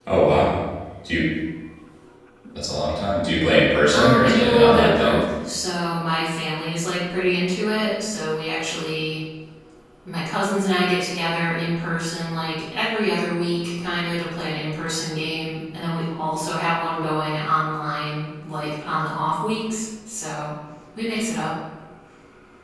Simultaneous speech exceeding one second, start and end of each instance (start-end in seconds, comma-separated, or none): 3.9-5.1